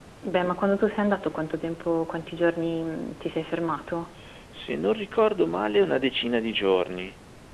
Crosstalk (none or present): none